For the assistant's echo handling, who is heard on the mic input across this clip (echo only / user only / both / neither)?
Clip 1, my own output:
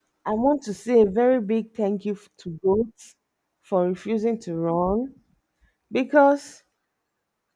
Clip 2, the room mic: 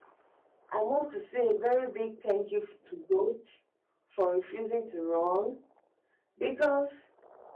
echo only